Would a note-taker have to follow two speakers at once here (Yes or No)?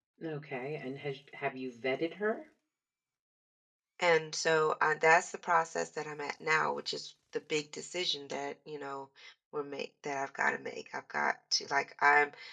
No